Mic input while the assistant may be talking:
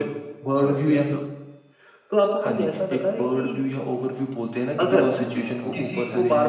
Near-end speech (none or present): present